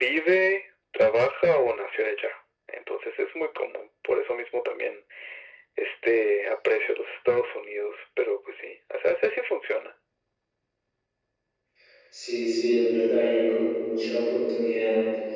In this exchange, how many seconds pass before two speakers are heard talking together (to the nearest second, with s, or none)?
none